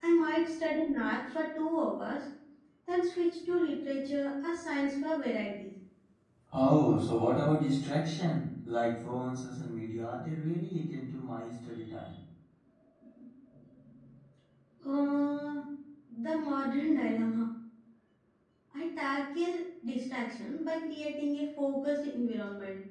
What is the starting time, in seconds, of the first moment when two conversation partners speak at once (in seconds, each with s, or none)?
none